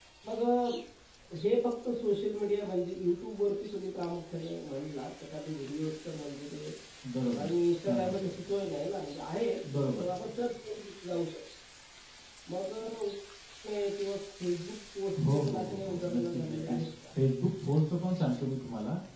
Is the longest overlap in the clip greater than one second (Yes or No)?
Yes